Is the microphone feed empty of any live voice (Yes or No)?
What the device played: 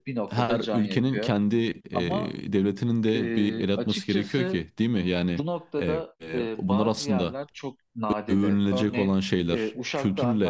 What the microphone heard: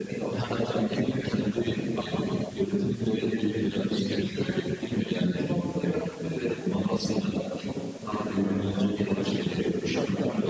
No